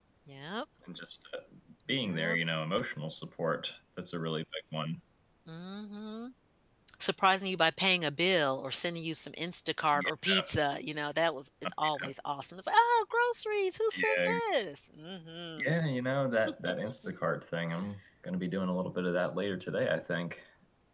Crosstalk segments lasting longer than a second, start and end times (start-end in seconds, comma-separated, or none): none